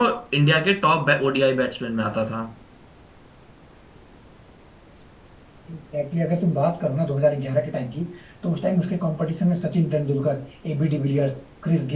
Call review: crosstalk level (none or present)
none